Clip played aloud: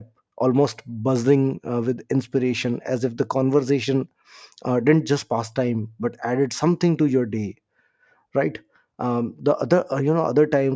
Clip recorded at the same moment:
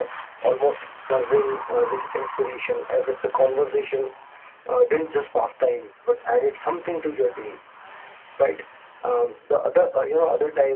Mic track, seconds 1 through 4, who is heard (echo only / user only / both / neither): echo only